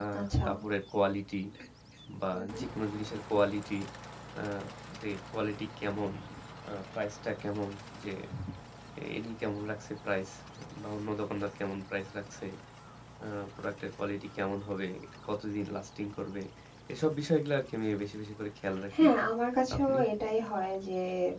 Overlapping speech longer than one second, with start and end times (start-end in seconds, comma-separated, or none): none